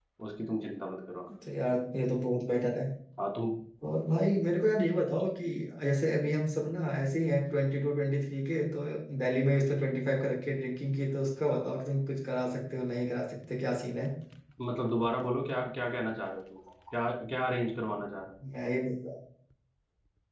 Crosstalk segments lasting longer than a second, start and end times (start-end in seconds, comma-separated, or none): none